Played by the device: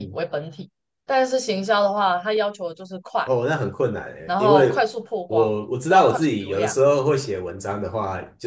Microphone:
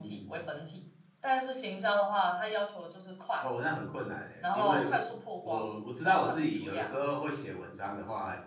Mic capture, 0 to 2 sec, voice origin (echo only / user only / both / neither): echo only